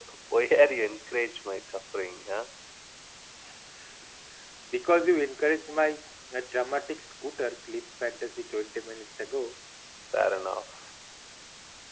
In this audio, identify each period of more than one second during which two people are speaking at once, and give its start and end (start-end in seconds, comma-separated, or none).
none